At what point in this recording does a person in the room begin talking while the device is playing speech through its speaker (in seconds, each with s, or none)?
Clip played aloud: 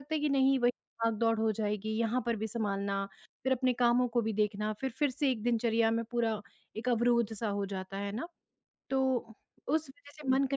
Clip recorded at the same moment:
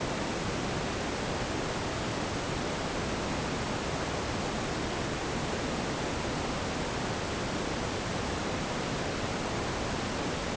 none